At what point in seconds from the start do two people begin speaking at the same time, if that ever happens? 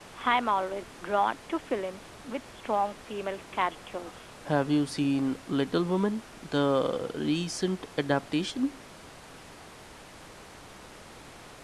none

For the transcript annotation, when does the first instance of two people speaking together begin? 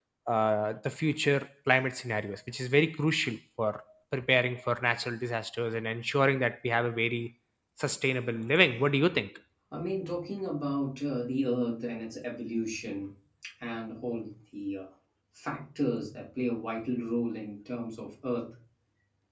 none

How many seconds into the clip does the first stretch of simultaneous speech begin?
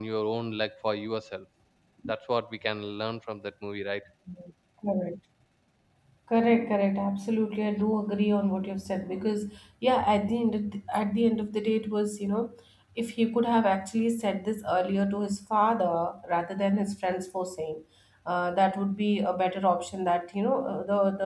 none

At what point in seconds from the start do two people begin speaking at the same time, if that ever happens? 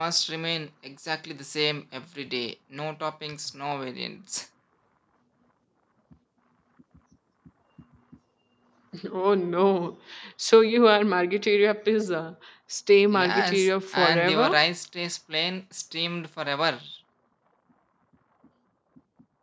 13.1 s

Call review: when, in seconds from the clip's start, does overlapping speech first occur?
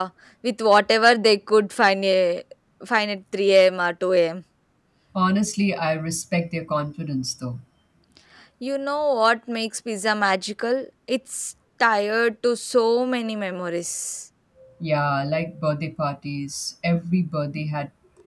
none

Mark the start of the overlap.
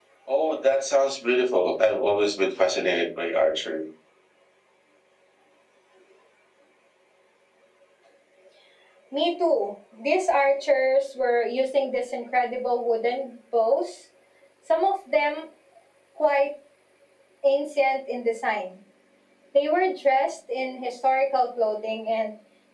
none

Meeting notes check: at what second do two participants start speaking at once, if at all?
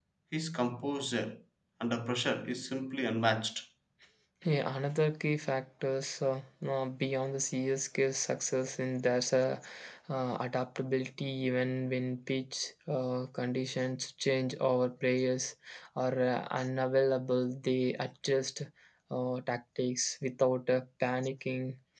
none

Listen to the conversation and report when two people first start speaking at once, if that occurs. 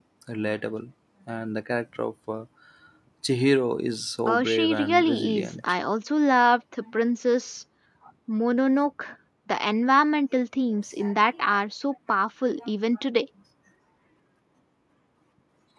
4.3 s

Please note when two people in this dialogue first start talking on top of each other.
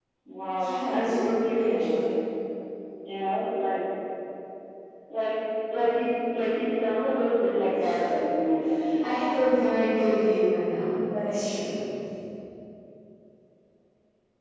0.6 s

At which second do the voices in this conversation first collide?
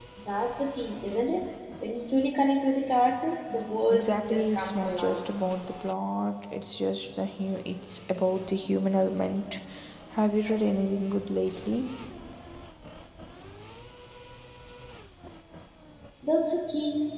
3.9 s

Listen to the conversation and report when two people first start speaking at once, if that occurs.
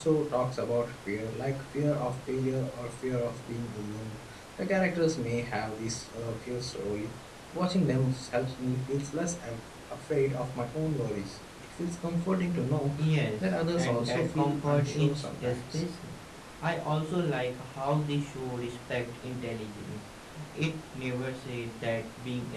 13.4 s

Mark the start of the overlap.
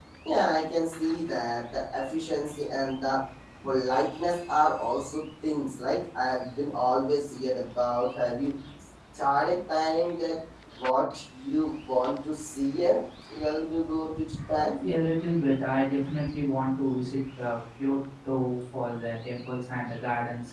none

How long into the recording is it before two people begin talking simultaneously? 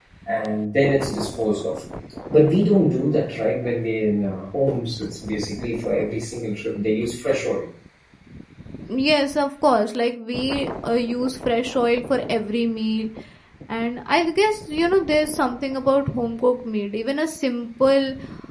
none

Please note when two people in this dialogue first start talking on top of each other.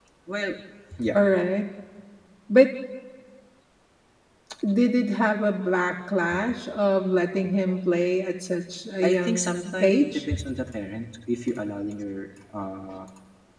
9.0 s

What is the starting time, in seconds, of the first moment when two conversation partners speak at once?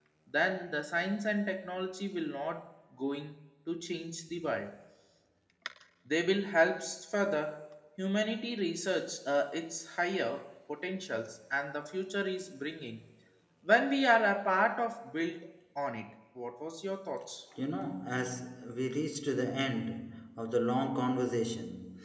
none

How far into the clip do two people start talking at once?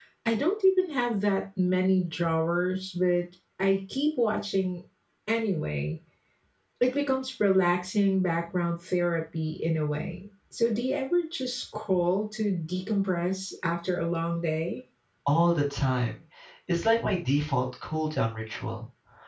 none

